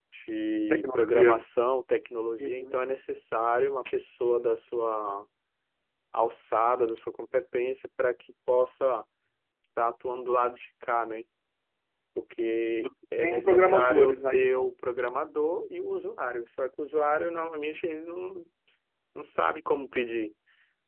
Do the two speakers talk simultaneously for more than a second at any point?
Yes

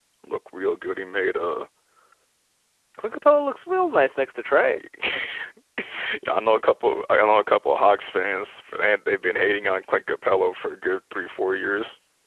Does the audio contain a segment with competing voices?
No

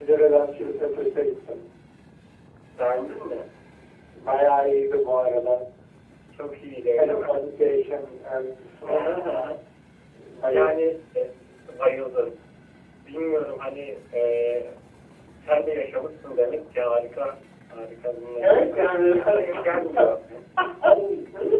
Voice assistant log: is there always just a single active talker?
No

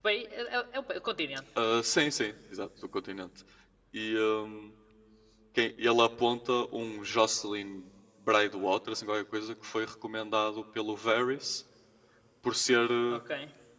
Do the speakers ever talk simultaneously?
No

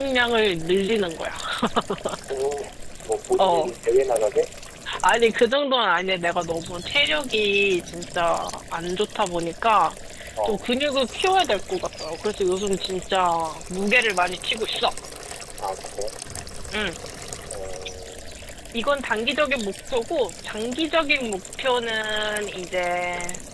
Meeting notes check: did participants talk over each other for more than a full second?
No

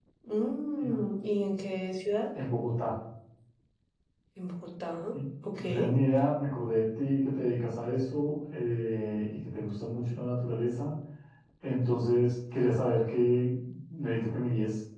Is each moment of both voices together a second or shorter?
Yes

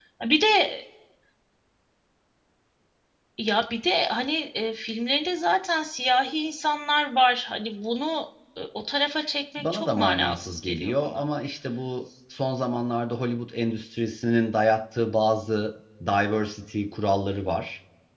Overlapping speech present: Yes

